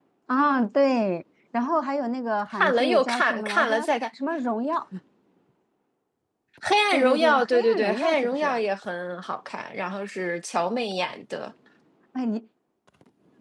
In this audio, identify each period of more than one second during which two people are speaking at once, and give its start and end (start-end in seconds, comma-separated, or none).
2.6-3.9, 6.9-8.6